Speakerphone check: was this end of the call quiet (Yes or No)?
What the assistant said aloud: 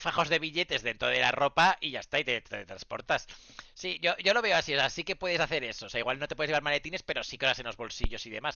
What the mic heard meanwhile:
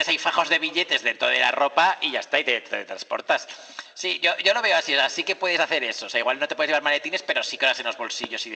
Yes